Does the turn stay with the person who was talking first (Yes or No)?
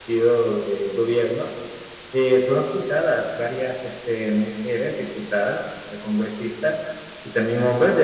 Yes